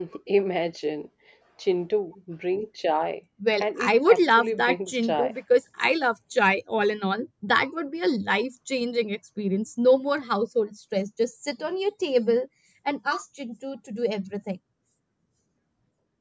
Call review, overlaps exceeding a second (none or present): present